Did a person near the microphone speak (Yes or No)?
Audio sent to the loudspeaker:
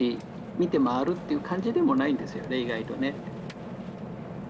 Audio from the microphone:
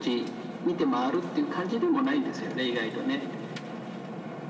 No